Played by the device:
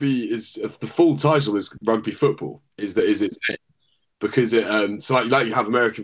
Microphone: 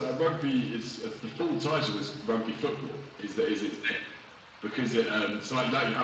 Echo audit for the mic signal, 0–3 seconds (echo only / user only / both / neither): echo only